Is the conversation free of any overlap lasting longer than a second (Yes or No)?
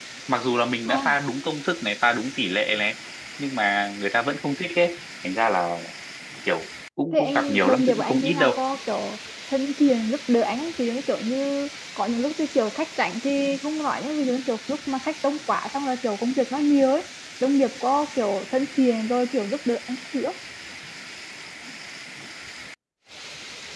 No